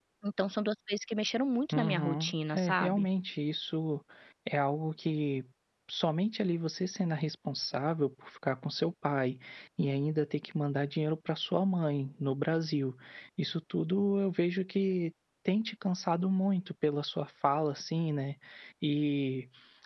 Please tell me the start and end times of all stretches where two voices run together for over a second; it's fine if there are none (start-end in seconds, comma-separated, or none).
1.7-3.1